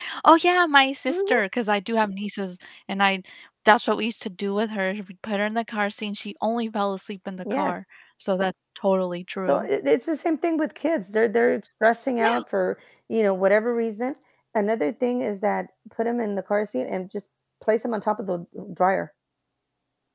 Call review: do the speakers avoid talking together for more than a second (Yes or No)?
Yes